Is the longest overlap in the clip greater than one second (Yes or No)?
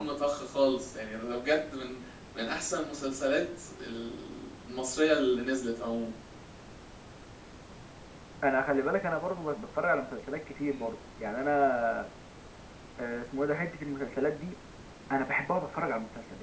No